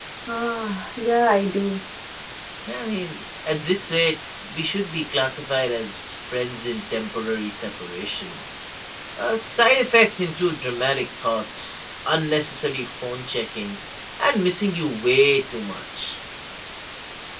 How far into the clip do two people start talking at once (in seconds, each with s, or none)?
none